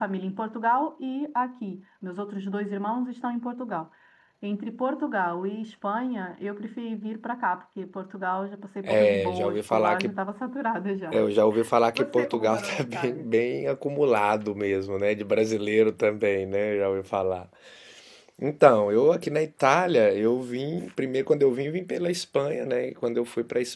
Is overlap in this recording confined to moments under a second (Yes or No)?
No